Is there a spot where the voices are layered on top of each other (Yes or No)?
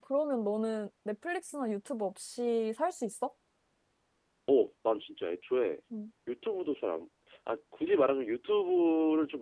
No